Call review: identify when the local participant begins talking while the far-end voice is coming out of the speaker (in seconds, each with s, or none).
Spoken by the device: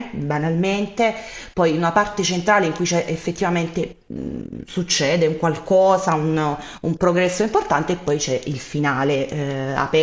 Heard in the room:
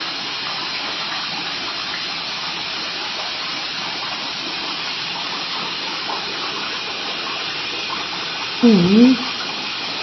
8.6 s